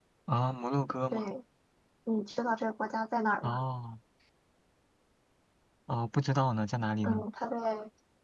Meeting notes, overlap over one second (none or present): none